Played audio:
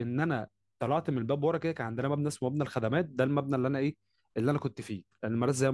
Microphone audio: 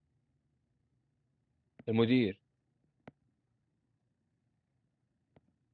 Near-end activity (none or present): present